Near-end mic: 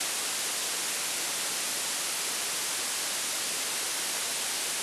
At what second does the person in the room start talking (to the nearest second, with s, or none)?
none